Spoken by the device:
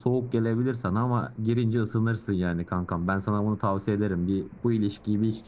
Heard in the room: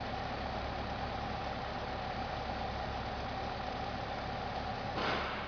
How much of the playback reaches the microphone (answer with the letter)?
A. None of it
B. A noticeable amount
A